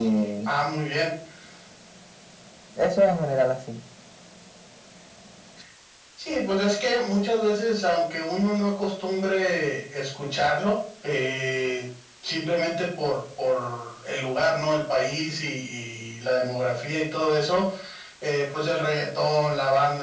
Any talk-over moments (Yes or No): No